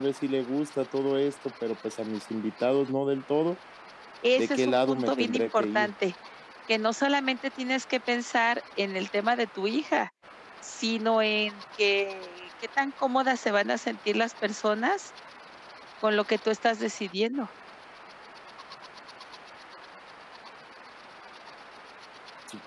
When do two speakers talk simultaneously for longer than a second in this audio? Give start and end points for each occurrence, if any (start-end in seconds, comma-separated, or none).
4.3-5.9